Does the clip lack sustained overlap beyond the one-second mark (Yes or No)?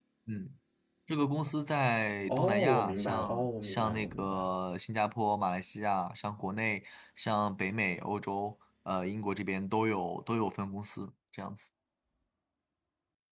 No